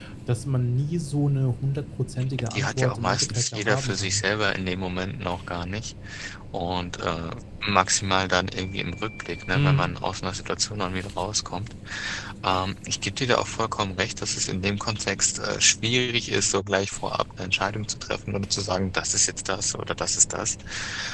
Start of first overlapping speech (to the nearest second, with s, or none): 3 s